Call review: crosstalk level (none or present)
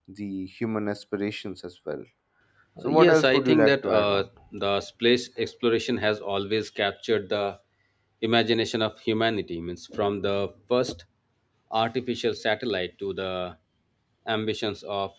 present